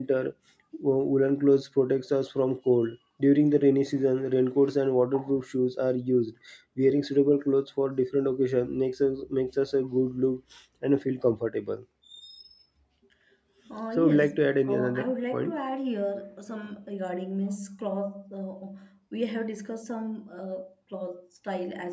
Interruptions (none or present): present